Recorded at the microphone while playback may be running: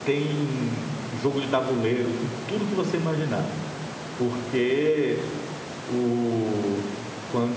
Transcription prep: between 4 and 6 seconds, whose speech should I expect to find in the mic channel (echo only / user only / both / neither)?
user only